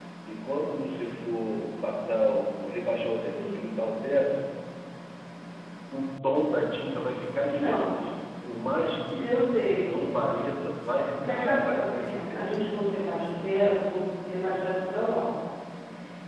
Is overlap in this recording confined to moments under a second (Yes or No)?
No